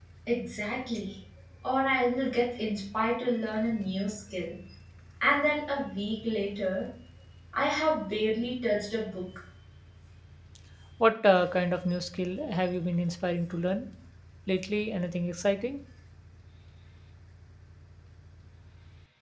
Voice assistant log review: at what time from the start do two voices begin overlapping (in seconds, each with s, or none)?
none